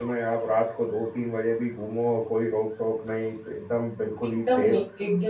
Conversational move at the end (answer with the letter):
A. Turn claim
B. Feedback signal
A